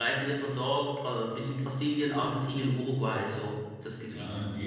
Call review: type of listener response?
taking over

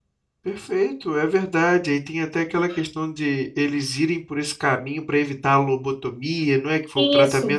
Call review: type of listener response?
taking over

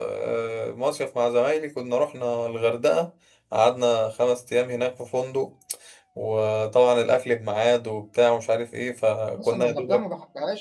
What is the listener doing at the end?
taking over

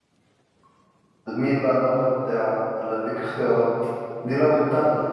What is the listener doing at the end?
listening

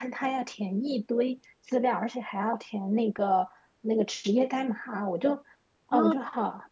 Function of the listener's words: listening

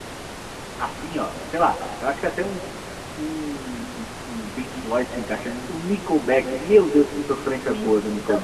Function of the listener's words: taking over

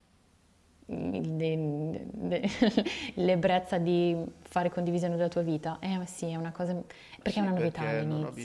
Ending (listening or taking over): taking over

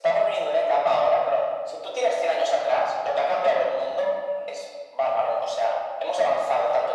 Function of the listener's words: listening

